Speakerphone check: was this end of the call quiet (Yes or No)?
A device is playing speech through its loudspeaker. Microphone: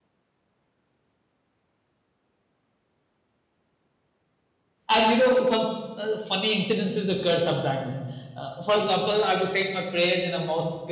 No